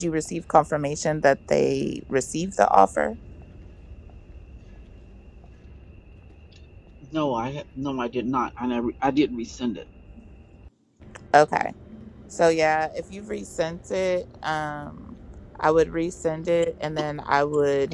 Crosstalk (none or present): none